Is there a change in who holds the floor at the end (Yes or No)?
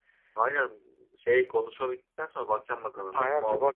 Yes